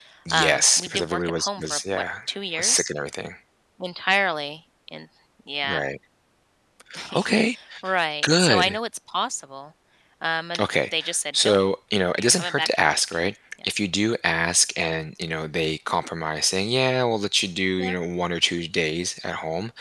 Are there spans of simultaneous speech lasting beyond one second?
Yes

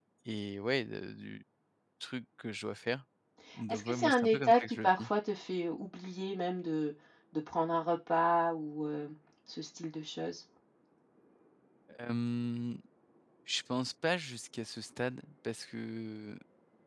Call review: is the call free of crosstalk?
No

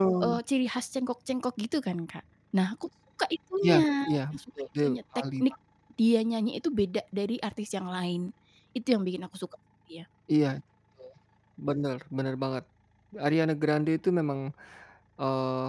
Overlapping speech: Yes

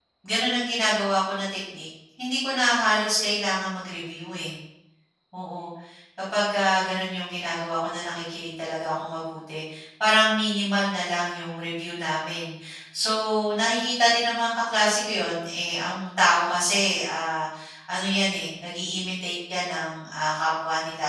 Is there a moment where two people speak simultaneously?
No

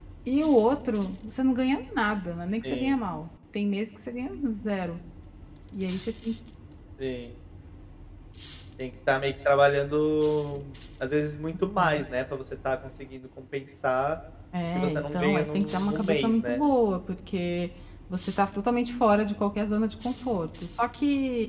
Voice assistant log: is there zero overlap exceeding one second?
No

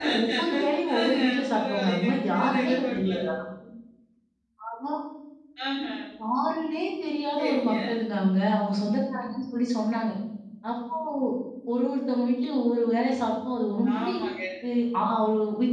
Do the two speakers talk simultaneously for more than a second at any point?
Yes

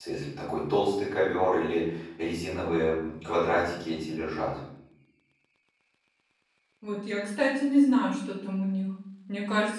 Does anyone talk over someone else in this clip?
No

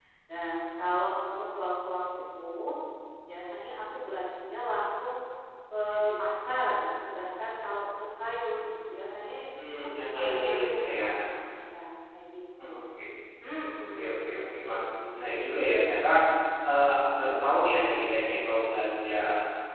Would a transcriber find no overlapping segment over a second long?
No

